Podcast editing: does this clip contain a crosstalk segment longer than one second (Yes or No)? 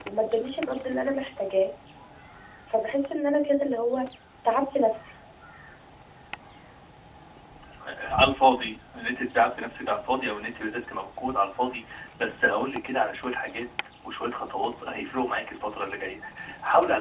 No